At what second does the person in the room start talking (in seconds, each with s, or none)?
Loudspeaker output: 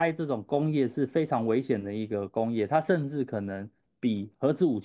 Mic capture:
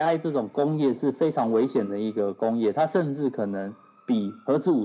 none